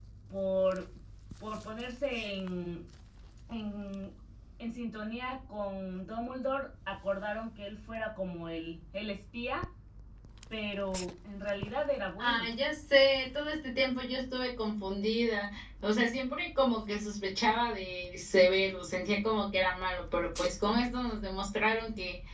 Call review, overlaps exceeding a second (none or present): none